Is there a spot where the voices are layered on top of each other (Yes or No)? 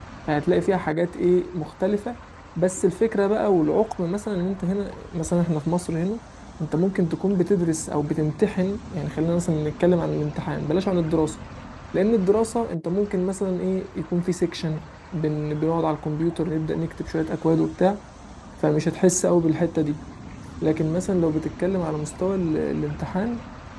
No